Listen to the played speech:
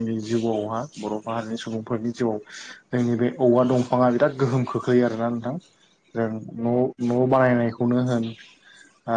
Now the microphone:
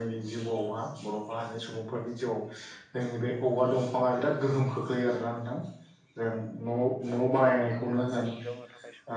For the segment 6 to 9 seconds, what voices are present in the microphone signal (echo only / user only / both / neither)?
both